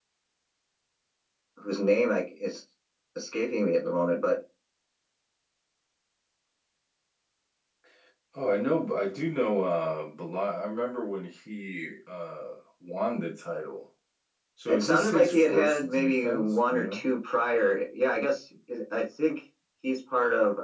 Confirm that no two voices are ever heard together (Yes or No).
No